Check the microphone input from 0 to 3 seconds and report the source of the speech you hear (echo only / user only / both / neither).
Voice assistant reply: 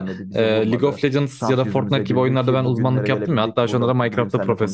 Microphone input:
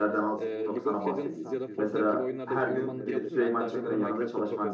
both